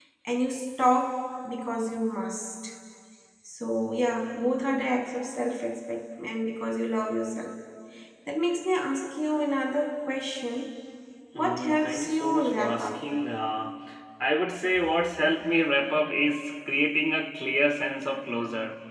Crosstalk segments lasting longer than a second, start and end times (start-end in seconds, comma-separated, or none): 11.4-13.0